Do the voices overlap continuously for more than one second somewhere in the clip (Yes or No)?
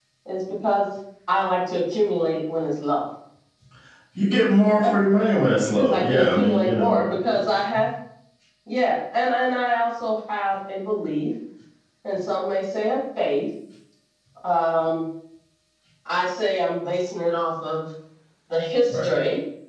Yes